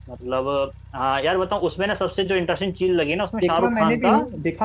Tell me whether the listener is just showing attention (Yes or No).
No